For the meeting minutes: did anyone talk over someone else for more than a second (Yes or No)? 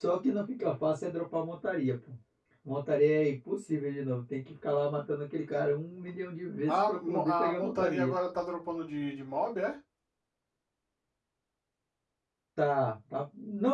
Yes